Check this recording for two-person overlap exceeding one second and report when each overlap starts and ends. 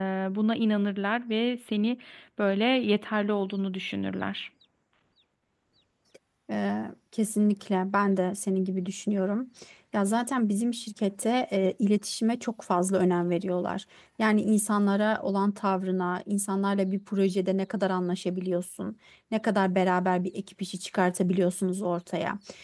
none

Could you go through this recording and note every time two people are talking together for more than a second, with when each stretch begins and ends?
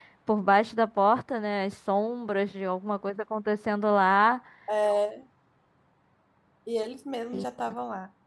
none

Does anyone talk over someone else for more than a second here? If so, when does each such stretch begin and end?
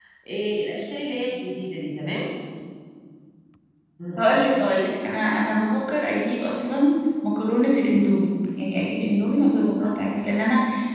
none

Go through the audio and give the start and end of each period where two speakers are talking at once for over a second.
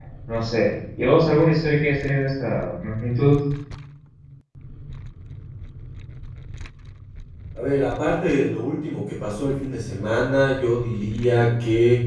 none

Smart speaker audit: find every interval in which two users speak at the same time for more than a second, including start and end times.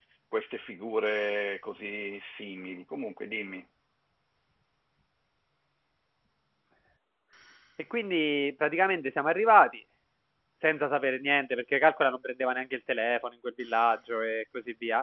none

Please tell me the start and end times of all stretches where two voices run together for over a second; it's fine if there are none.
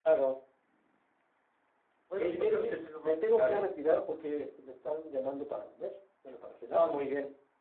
2.2-3.6

